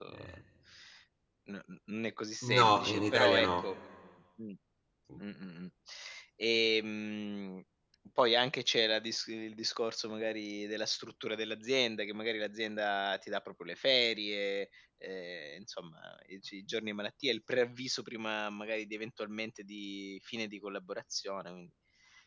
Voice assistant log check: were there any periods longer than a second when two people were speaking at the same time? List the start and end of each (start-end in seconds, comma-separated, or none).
2.4-3.6